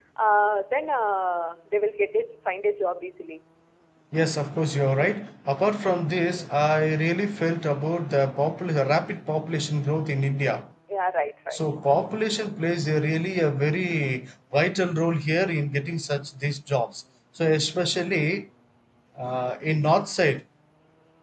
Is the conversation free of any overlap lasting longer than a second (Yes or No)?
Yes